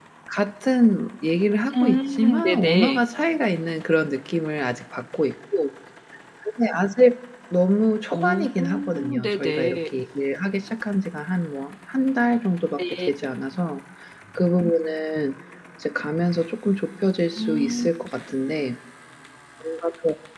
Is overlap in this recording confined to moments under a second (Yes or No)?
No